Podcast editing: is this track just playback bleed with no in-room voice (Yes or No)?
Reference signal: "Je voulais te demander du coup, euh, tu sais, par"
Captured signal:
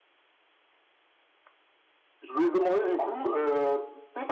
Yes